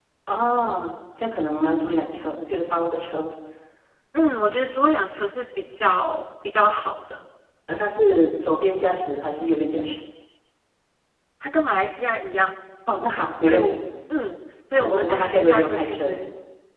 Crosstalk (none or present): present